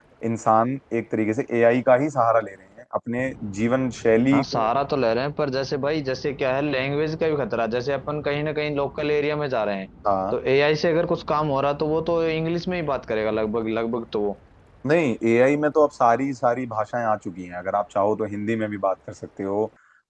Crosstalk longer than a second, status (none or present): none